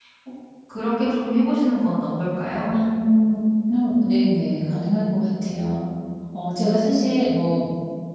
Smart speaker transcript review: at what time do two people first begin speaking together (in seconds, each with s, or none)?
none